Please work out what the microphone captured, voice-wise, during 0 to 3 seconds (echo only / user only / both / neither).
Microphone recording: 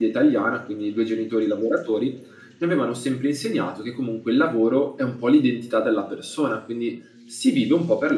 user only